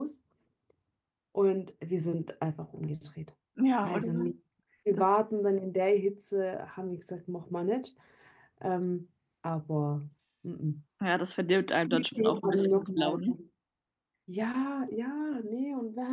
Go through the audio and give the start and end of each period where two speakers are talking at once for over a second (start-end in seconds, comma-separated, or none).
11.9-13.2